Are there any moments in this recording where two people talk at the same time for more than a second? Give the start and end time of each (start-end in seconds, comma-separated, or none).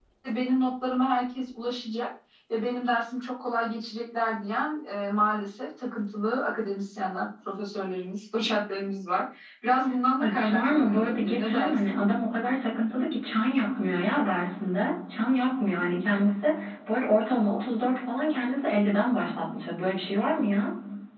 10.2-12.0